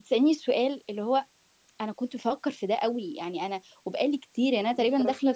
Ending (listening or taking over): listening